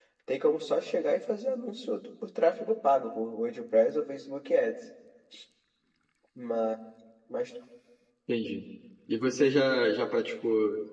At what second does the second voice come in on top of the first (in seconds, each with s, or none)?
none